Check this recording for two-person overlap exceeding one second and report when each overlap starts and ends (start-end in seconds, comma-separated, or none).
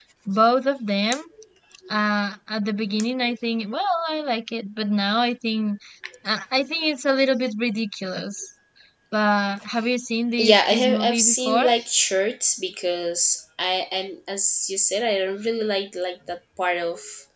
10.4-11.7